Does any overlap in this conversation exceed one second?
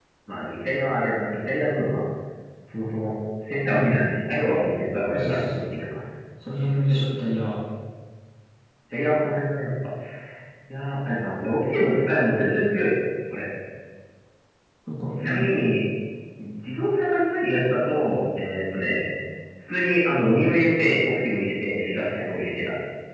No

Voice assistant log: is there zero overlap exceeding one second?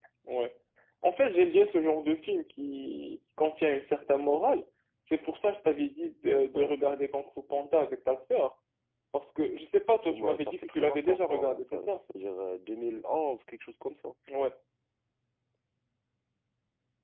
No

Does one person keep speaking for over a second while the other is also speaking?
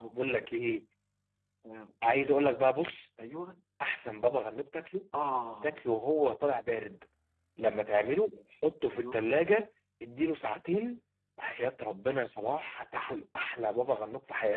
No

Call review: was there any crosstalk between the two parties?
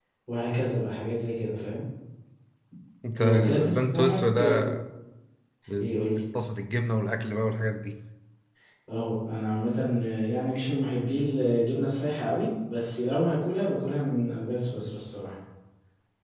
Yes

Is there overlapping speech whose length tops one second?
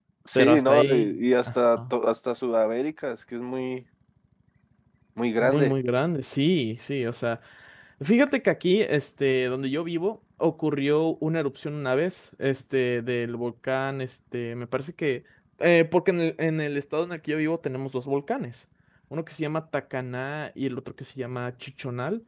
Yes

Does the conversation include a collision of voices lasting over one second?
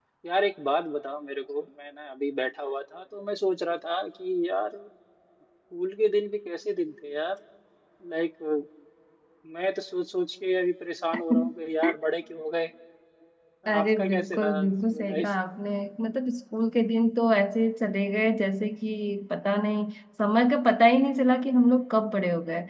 Yes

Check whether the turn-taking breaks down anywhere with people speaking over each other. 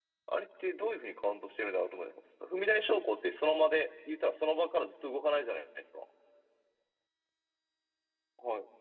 No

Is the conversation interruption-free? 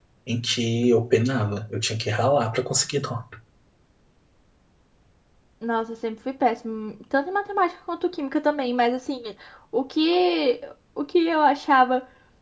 Yes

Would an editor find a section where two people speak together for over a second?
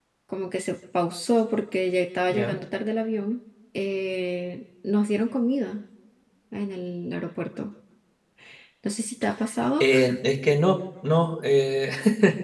No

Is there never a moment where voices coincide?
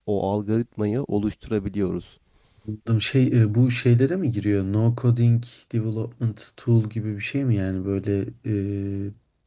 Yes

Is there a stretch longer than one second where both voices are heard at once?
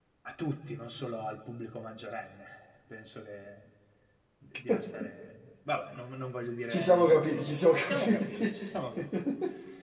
Yes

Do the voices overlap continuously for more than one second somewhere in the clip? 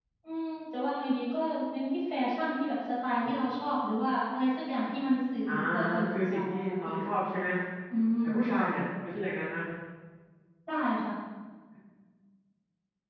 Yes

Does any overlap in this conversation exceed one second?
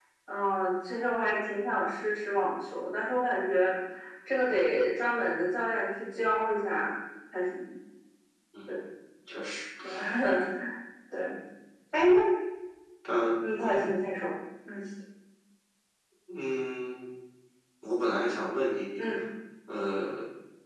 No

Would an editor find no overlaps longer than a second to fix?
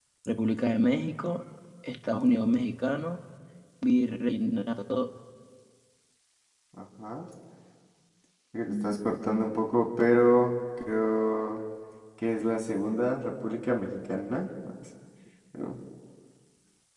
Yes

